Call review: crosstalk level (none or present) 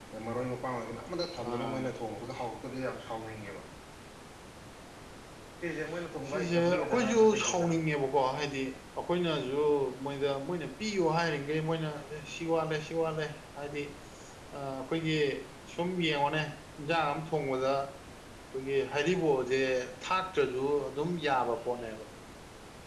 present